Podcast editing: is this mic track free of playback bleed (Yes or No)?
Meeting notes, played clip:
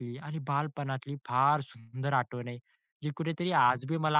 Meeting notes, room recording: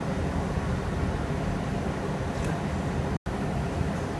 Yes